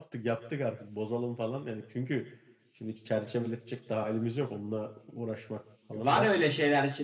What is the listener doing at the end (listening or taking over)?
taking over